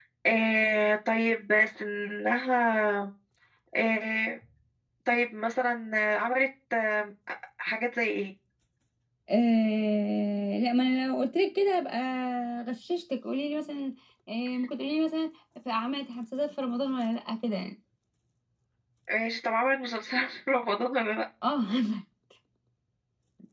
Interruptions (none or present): none